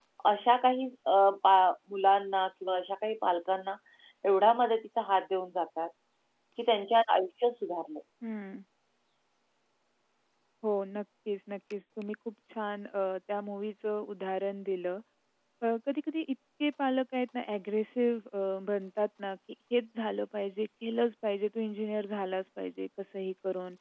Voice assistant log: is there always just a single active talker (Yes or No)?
Yes